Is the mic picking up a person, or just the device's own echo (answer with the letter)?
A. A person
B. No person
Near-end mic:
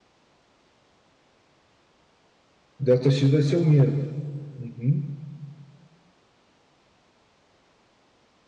A